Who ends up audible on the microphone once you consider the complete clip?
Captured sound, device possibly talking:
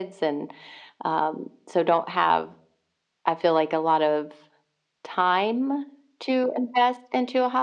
echo only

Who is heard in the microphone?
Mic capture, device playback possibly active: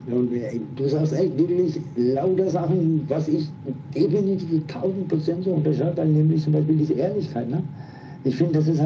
echo only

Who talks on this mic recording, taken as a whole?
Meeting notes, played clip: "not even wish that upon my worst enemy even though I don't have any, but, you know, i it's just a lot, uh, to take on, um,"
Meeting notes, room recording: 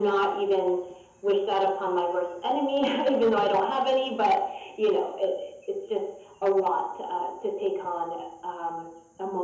echo only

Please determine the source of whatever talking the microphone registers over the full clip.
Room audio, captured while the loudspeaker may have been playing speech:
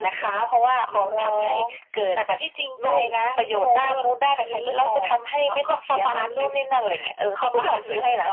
echo only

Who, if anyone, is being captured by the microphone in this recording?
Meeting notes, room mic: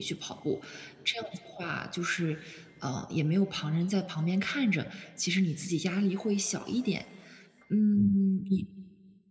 user only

